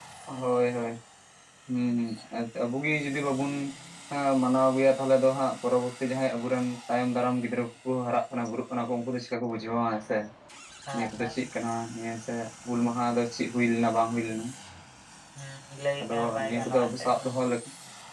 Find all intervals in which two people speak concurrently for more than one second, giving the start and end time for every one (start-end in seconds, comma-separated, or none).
16.0-17.3